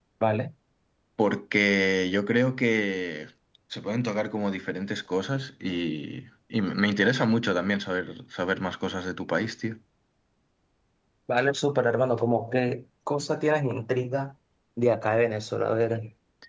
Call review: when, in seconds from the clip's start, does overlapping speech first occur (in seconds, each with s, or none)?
none